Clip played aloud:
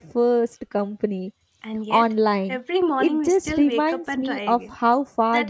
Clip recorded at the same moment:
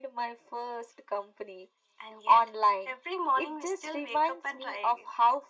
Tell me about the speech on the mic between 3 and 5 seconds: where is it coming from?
echo only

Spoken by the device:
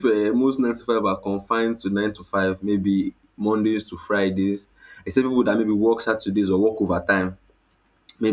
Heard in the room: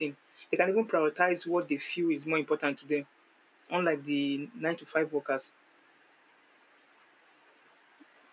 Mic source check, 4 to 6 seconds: user only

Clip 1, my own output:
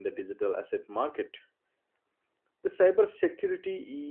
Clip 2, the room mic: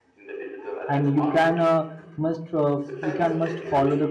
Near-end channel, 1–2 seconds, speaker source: both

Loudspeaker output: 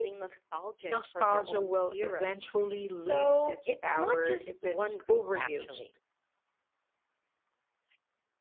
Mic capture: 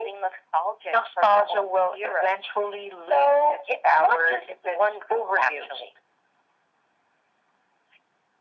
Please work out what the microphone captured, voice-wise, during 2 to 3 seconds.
echo only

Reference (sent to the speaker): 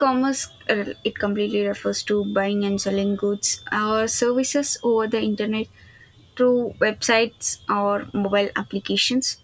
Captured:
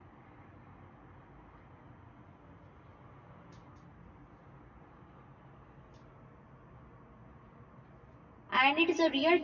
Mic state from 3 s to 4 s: neither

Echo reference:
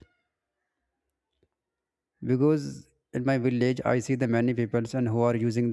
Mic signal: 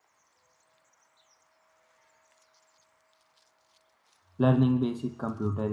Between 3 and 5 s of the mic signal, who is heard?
user only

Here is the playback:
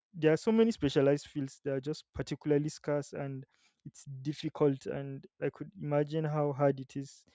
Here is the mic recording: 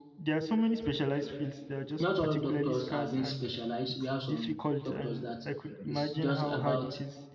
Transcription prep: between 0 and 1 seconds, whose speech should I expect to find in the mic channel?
echo only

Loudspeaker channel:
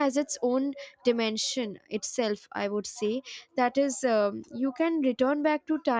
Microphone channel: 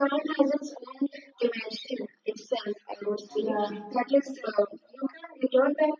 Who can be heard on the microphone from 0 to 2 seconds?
echo only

